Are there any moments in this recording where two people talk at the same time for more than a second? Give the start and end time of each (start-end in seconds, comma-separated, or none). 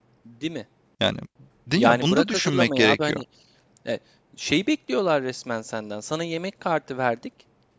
1.8-3.2